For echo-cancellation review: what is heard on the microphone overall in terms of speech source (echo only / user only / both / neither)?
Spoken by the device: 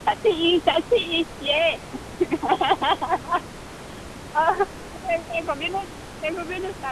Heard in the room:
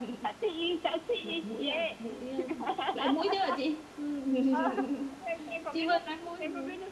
both